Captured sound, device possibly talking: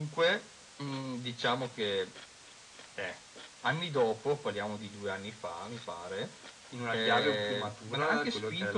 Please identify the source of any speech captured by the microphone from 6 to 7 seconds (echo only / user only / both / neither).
both